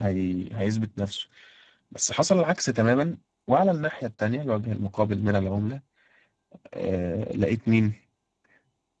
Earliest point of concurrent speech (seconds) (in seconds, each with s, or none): none